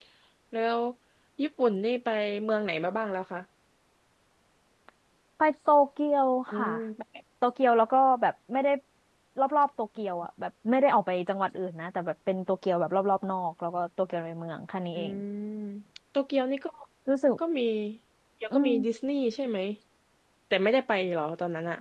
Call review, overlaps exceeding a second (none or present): none